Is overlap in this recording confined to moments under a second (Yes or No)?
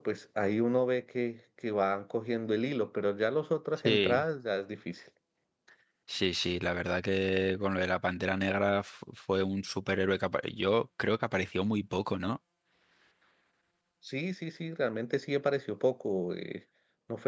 Yes